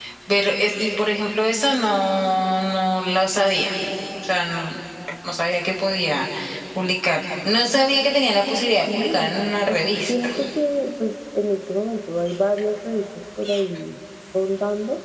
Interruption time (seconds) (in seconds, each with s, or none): 8.9 s